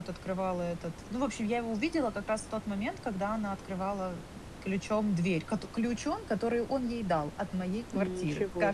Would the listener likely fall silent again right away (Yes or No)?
No